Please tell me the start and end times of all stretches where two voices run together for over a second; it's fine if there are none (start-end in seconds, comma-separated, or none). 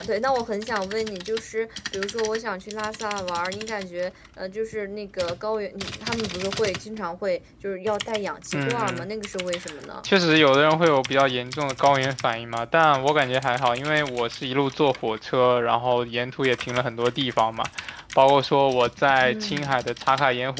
none